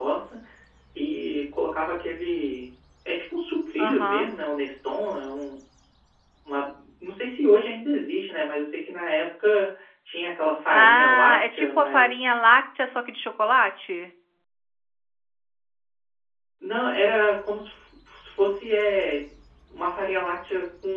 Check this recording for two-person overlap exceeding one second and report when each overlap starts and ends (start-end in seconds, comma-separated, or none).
10.7-12.3